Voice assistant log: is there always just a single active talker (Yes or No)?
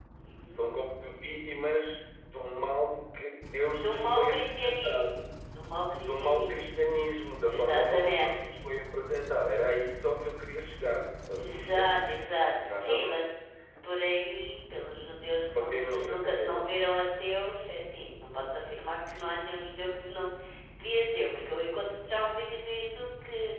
No